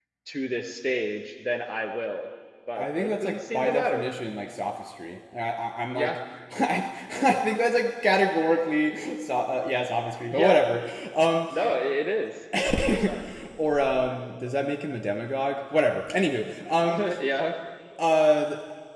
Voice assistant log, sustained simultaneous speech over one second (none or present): present